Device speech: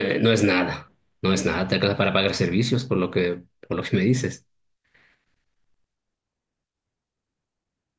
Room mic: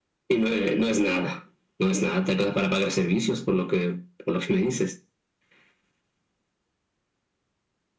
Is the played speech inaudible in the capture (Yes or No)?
No